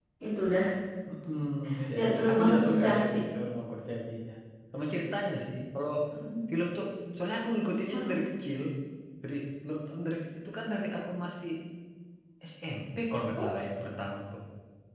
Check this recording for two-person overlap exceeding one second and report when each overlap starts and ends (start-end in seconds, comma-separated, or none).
1.9-3.2